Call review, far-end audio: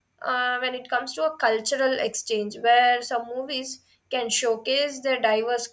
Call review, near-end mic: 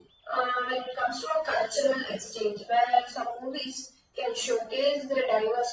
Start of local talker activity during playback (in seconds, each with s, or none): none